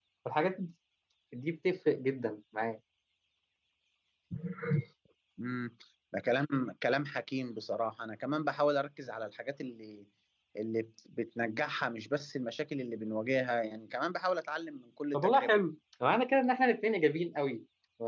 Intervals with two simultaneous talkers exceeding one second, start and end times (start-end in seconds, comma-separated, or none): none